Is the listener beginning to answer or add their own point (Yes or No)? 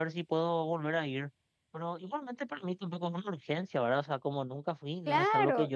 Yes